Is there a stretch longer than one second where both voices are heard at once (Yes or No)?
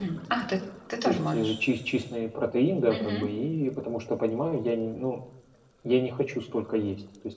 No